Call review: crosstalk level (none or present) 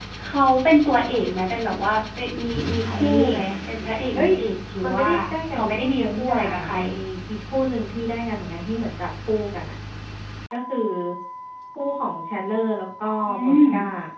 present